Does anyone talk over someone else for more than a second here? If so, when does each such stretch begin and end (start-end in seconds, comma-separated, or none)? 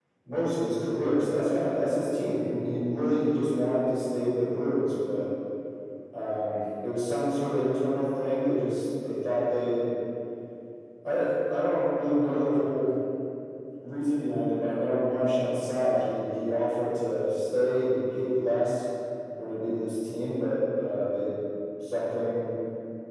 none